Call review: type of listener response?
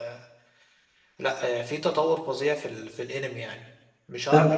listening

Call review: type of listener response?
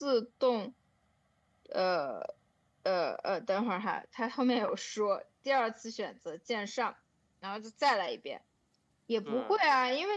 listening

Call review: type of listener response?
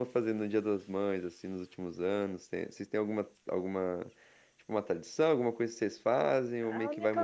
taking over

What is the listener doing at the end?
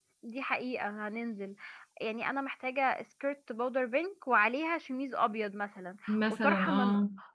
listening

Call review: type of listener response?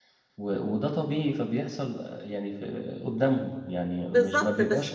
taking over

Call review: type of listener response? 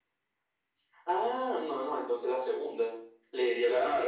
taking over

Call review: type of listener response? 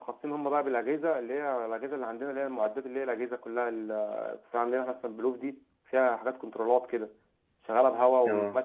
listening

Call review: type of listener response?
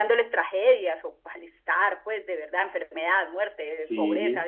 listening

